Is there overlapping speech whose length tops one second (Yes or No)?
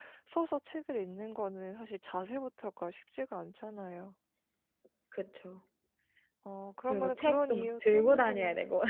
Yes